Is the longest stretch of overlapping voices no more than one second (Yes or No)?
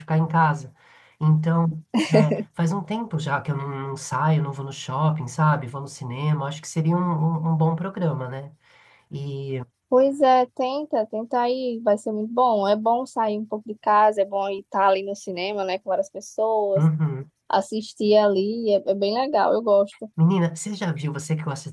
Yes